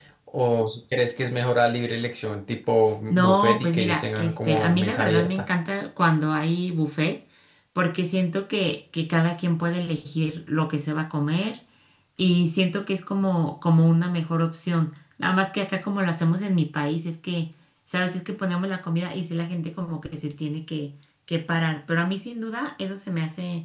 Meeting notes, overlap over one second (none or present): present